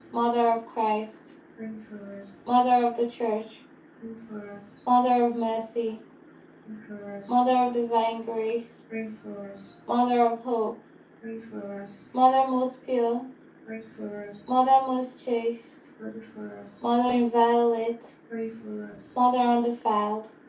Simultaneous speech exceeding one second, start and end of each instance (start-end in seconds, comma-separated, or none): none